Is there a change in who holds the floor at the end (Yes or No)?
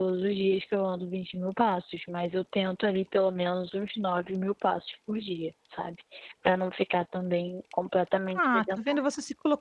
Yes